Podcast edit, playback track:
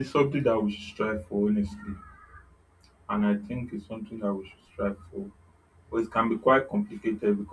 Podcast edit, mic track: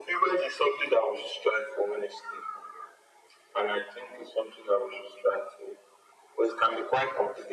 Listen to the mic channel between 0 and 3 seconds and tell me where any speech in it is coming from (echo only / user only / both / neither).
echo only